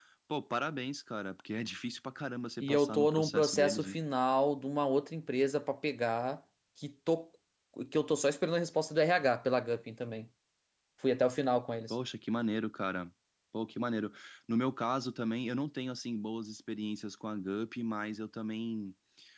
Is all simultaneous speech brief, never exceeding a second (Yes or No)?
No